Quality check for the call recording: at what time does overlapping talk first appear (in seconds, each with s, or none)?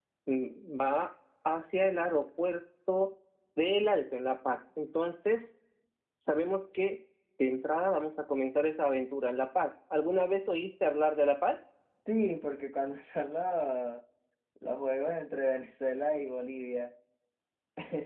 none